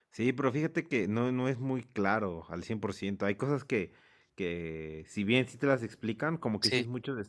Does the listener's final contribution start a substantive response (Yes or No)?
No